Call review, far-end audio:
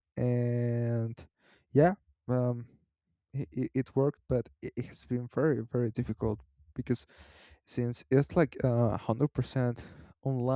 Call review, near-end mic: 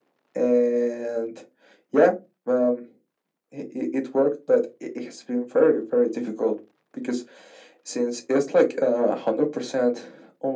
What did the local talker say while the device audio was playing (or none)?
none